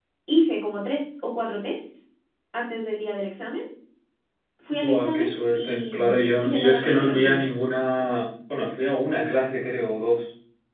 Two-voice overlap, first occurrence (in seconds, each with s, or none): 4.7 s